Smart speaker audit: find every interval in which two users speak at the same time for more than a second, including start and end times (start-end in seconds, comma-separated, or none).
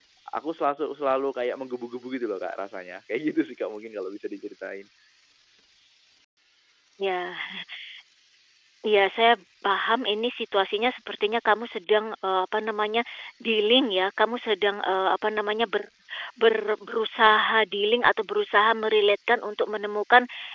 none